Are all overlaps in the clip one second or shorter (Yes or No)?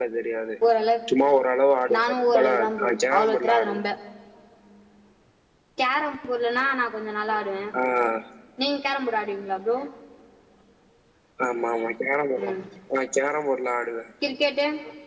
No